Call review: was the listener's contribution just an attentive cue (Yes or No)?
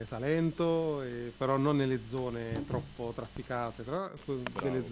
No